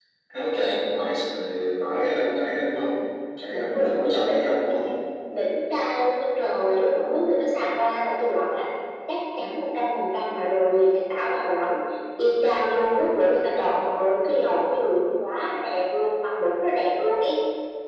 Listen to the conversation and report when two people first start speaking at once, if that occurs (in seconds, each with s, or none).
3.5 s